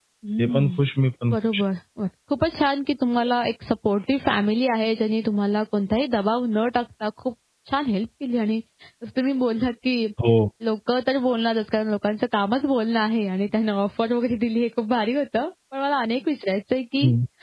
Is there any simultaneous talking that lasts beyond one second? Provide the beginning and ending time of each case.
none

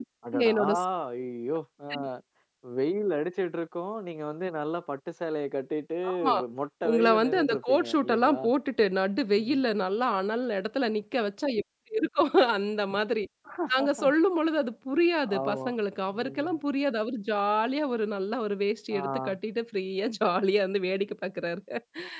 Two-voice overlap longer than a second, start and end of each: 6.9-8.4

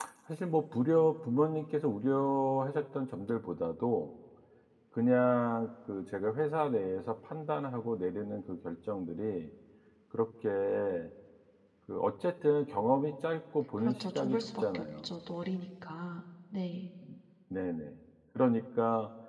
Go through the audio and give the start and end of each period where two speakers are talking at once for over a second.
13.8-15.1

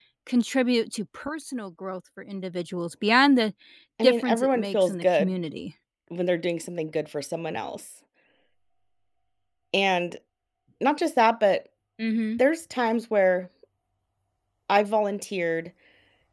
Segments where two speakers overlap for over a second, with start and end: 4.0-5.3

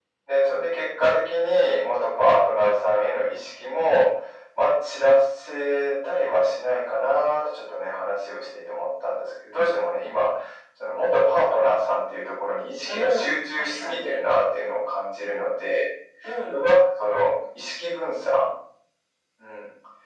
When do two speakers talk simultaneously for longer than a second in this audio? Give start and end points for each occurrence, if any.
12.8-14.2

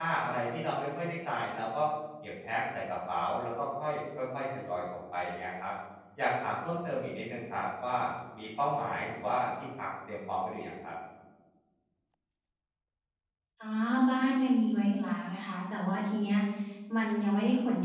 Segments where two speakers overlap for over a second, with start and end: none

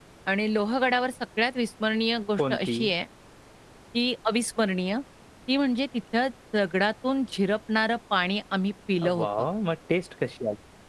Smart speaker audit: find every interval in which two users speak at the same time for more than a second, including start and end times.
none

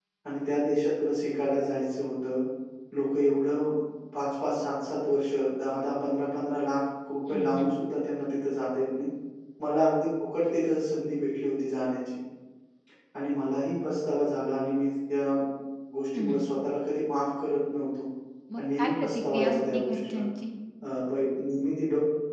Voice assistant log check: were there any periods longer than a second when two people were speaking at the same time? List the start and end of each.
18.6-20.2

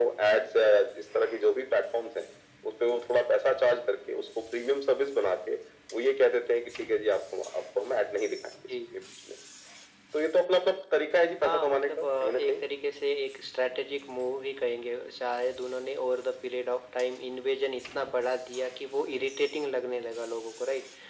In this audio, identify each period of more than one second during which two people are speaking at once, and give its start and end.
11.4-12.6

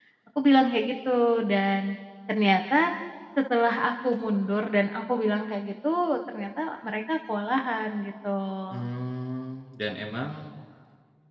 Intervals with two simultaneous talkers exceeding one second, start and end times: none

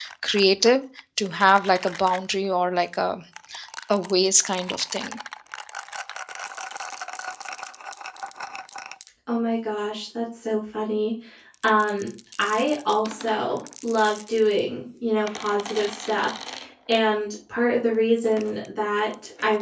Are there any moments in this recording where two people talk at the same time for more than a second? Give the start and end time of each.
none

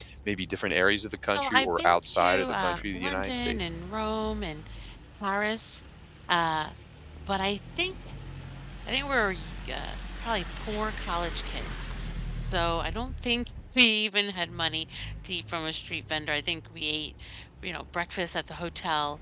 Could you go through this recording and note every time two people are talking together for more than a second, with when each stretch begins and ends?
1.3-3.7

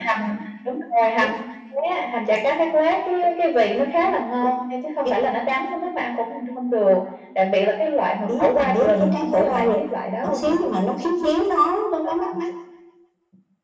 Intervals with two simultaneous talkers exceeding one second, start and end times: 8.3-9.8

